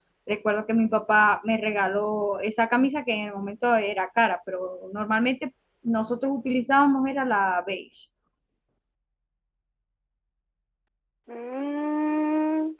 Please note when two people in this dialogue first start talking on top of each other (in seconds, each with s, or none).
none